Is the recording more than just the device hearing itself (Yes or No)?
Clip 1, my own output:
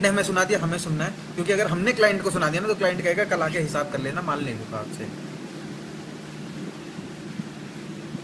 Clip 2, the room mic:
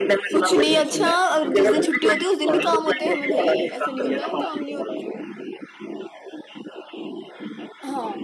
Yes